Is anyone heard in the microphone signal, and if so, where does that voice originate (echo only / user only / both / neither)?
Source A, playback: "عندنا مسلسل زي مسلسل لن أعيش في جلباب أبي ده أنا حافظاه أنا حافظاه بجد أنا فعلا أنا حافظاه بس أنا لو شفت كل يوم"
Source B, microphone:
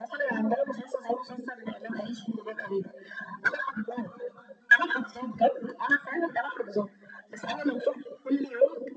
echo only